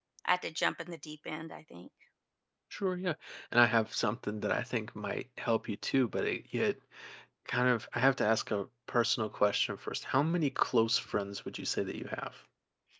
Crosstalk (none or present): none